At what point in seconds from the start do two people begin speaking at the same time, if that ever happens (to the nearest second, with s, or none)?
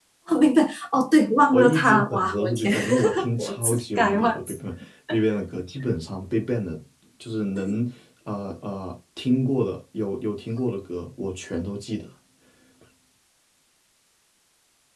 2 s